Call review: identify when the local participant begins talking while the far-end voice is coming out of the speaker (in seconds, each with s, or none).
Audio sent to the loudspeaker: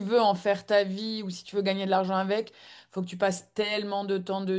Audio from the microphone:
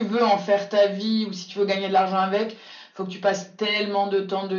none